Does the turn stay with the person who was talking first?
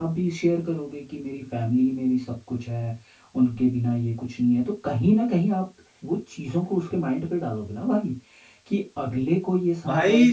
No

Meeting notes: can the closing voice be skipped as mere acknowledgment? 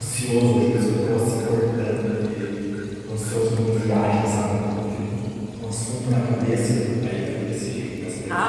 No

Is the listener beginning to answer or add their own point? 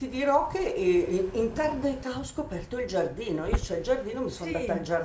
No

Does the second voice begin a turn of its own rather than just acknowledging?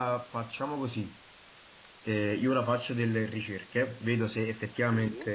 No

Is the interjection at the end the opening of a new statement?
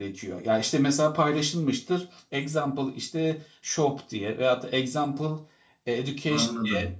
No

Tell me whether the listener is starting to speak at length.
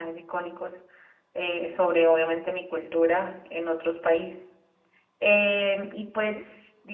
No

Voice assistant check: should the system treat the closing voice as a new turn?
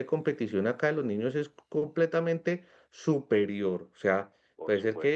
No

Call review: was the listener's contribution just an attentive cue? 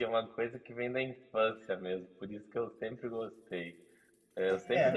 Yes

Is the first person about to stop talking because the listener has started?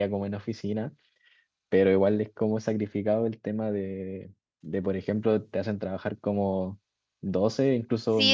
Yes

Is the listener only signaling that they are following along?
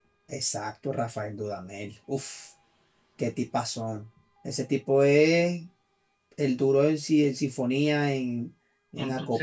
Yes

